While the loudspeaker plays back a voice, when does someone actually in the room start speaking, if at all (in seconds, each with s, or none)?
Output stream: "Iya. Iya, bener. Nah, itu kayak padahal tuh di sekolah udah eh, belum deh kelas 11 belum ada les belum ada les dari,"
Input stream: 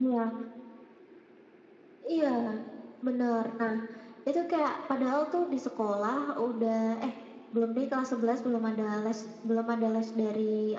none